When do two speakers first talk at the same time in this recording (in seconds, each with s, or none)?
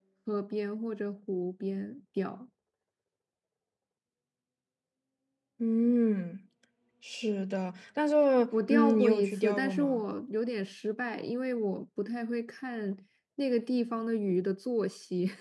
8.7 s